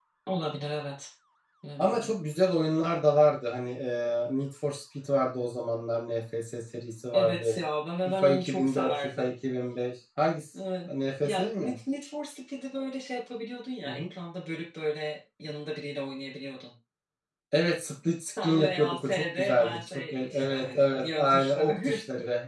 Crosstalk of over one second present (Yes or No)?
Yes